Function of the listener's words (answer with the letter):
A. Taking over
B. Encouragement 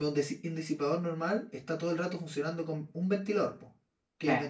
B